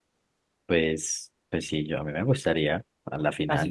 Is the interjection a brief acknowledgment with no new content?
No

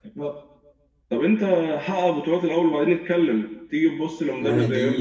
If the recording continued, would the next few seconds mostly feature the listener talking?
Yes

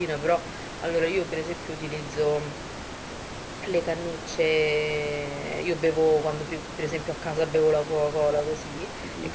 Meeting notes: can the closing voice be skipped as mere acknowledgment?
Yes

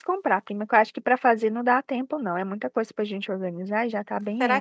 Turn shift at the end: Yes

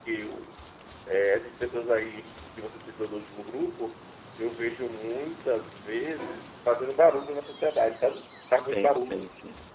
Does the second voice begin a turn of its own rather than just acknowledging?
Yes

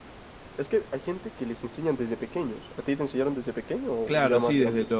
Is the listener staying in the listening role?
No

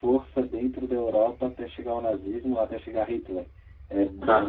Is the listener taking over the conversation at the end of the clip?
No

